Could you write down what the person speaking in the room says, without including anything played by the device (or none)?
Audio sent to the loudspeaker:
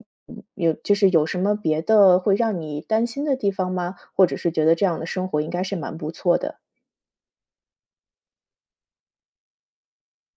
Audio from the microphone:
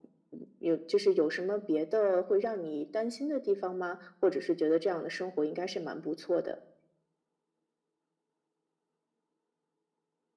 none